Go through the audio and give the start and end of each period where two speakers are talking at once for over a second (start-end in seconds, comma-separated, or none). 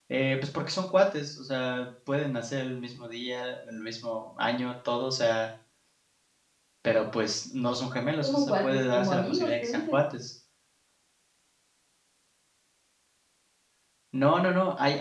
8.2-10.0